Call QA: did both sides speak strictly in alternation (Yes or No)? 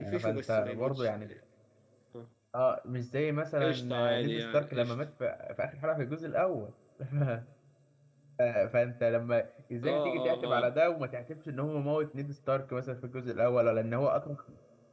No